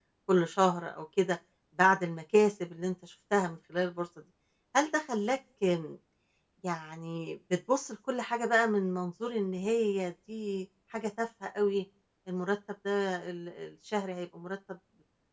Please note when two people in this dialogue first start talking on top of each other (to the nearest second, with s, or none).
none